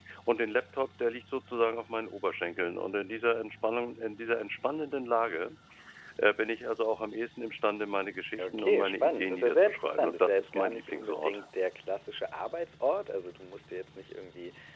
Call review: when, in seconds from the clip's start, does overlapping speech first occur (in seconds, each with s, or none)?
8.4 s